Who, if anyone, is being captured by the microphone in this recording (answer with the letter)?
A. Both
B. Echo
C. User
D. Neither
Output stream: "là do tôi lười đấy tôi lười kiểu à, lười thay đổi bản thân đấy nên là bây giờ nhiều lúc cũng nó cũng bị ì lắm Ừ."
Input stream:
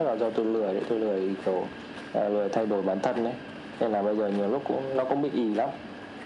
B